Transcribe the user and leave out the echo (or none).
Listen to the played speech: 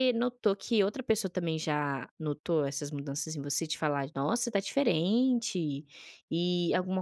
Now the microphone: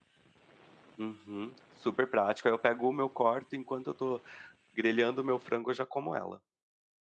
Uhum. Super prático aí eu pego uma, eu corto enquanto eu tô grelhando o meu frango, eu já como ela.